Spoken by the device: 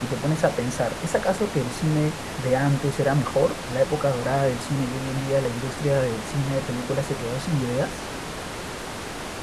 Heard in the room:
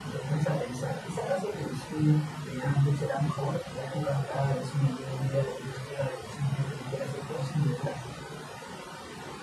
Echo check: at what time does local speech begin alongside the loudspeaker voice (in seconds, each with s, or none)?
none